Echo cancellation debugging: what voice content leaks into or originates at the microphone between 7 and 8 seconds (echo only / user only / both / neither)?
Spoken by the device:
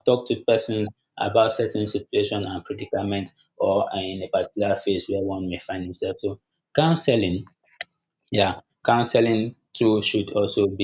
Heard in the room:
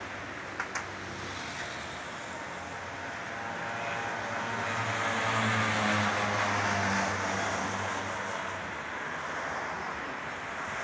neither